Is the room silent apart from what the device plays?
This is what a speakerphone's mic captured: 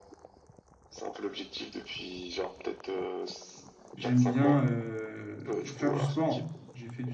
No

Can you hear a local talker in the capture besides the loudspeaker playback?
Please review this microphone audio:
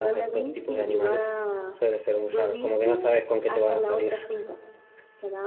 Yes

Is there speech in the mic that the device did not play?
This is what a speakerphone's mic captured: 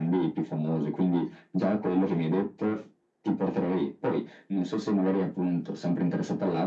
No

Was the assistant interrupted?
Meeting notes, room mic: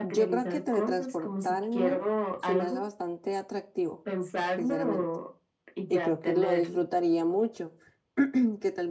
Yes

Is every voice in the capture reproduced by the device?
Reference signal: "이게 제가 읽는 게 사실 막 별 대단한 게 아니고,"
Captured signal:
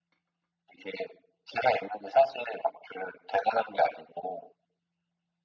Yes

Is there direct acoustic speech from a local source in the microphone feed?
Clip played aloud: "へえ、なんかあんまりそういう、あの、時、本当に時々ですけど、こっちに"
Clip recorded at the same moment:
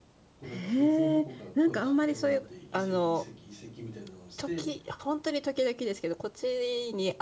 Yes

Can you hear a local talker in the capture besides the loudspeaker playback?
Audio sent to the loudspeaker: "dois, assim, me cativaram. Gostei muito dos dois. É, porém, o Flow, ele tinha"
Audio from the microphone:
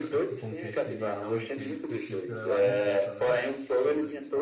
Yes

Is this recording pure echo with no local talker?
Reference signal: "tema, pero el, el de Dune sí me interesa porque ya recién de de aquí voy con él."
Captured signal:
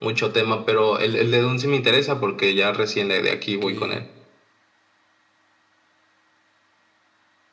No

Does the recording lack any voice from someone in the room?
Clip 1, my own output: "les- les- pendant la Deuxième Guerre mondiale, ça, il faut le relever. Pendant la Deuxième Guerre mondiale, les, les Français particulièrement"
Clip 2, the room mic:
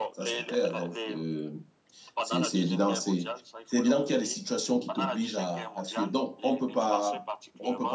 No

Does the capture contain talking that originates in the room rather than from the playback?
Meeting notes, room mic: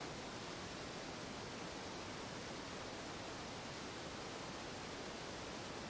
No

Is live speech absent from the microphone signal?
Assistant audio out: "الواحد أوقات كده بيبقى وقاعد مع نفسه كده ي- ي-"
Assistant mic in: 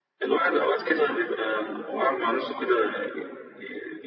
Yes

